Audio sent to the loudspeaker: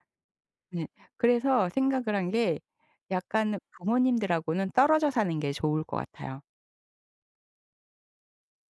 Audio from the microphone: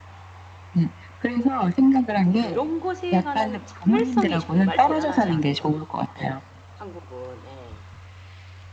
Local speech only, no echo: 그런 것에 관한 참을성이 정말 대단하지 않은가. 예 한국은 예.

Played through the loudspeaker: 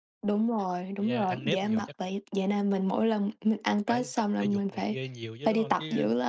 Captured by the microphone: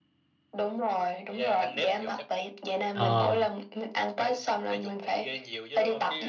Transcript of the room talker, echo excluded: Ờ.

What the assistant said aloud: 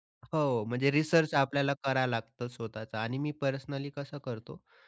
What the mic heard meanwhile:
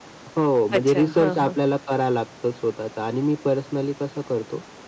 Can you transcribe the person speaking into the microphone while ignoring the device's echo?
अच्छा, हां, हां.

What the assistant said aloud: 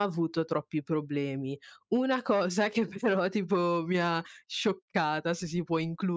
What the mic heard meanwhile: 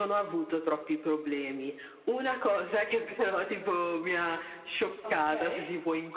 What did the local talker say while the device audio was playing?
Okay.

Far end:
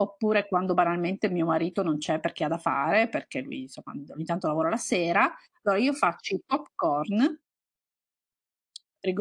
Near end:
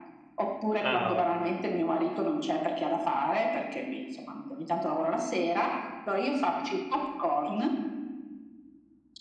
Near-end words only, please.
Ah, eh oh

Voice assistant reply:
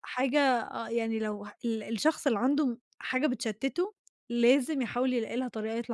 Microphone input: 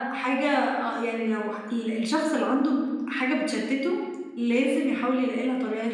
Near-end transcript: none

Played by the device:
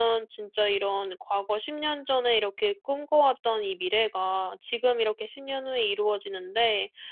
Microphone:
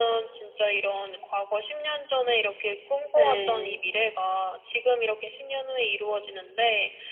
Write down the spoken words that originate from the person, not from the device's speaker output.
예.

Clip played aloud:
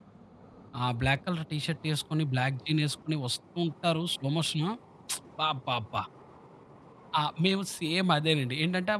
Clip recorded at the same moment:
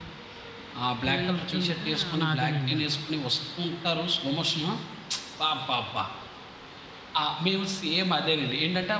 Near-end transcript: నిల్చుండిపోయి నాదేనండి అన్నా.

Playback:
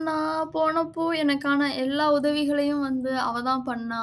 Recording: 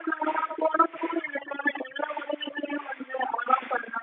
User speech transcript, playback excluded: none

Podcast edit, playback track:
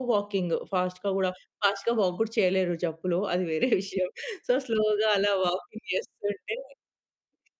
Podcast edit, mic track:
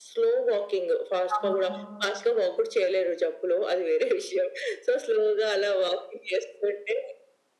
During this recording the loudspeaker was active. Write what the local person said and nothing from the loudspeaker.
అవును.

